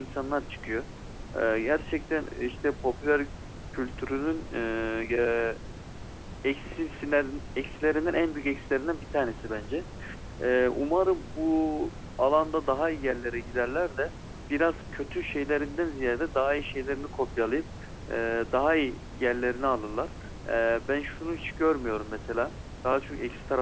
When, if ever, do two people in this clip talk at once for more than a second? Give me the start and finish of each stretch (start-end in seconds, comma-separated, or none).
none